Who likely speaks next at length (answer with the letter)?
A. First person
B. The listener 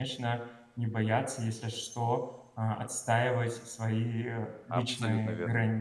B